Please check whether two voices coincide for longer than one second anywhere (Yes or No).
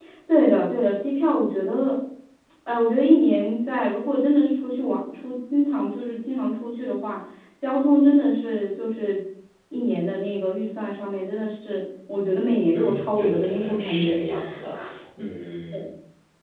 Yes